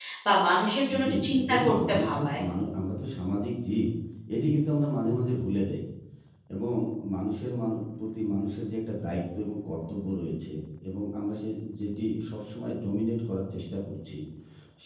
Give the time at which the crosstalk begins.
1.0 s

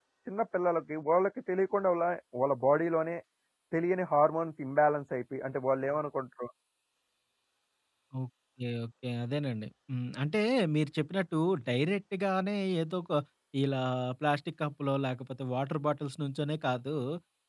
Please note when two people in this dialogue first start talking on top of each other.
none

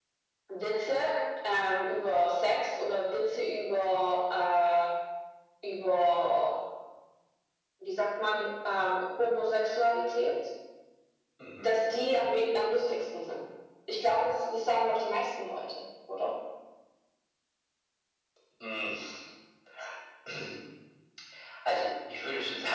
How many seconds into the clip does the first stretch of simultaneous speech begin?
none

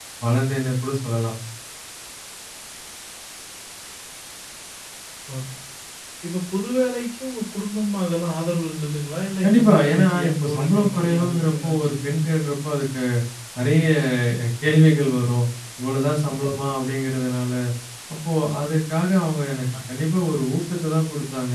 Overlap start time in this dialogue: 9.4 s

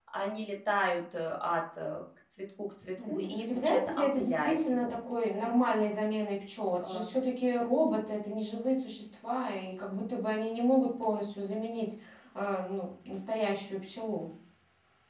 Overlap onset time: 3.0 s

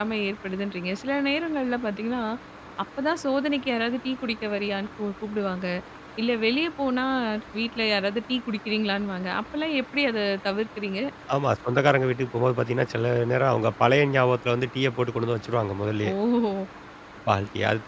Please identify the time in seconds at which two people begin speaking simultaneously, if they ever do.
none

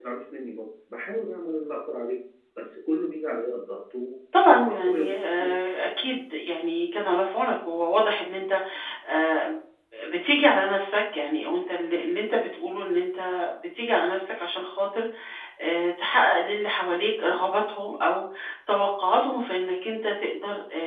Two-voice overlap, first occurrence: 4.3 s

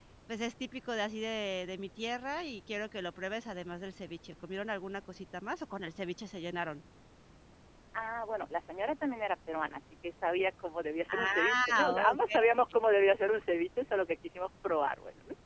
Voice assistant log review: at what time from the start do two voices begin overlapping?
11.1 s

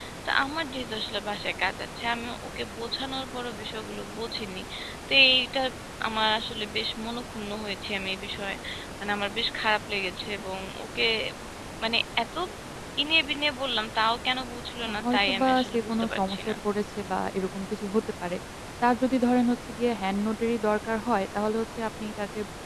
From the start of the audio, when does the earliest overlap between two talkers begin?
14.8 s

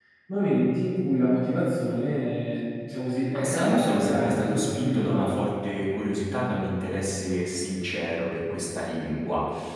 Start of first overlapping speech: 3.3 s

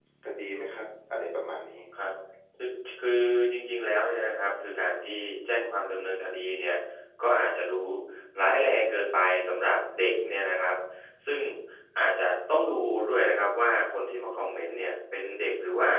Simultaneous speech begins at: none

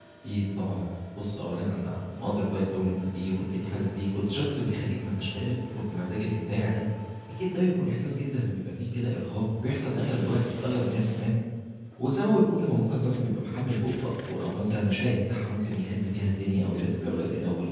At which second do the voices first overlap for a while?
none

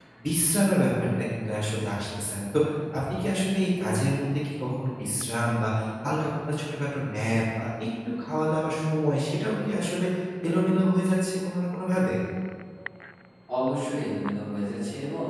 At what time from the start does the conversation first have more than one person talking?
none

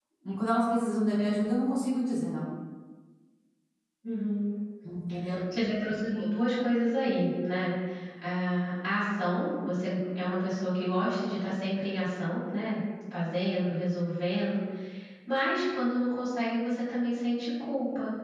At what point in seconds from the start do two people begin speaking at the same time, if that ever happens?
none

